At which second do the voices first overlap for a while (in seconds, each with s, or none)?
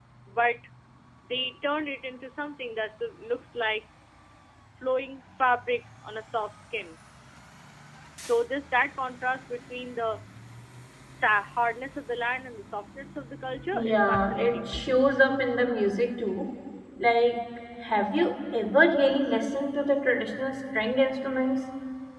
13.7 s